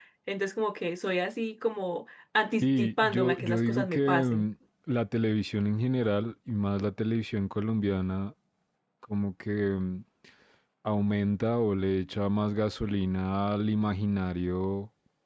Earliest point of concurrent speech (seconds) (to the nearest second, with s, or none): 3 s